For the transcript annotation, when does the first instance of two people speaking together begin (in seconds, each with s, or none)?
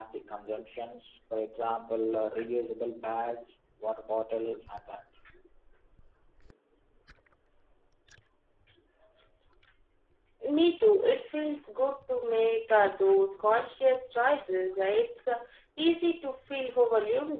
none